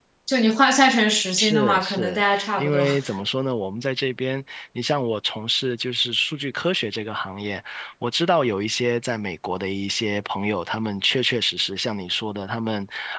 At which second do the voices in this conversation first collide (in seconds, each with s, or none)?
1.4 s